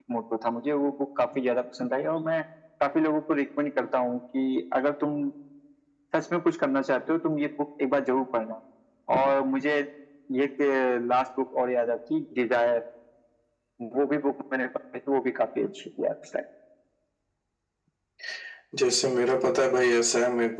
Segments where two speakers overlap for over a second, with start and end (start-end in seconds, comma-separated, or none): none